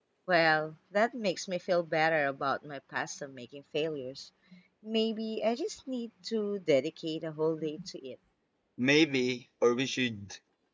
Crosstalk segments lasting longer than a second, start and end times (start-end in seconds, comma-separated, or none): none